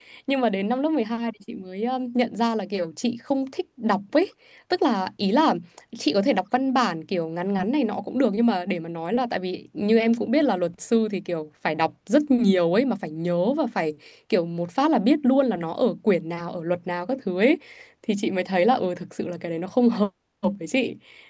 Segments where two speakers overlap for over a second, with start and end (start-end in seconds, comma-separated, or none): none